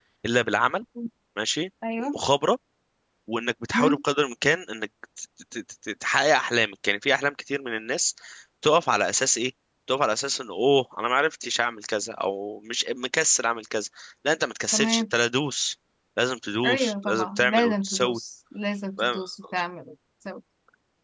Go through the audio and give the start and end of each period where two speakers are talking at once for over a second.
16.6-18.2

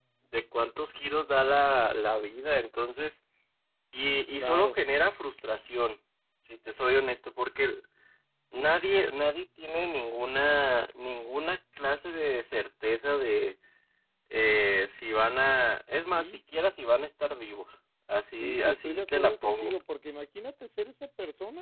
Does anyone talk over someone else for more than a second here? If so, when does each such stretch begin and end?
18.4-19.7

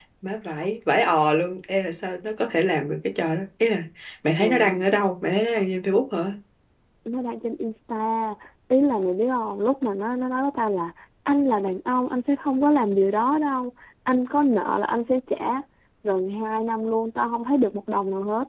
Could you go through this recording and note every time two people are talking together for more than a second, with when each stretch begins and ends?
none

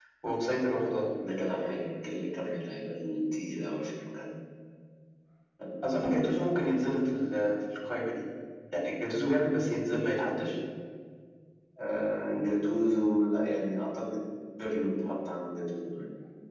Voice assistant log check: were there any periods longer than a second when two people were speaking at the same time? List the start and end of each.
none

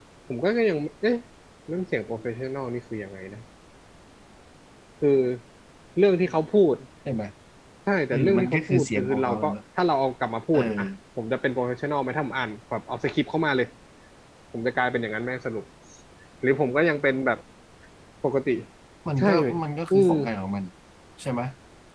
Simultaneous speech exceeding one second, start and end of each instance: 8.1-9.5

